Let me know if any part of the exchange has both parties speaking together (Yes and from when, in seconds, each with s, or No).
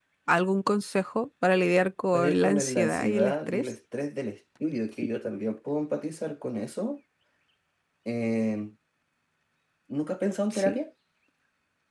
Yes, from 2.1 s